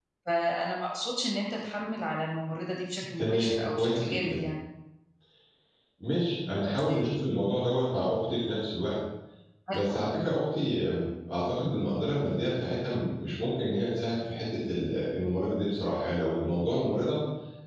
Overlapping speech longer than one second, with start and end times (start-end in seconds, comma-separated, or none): 3.2-4.4